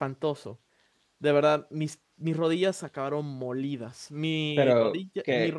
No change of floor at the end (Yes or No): Yes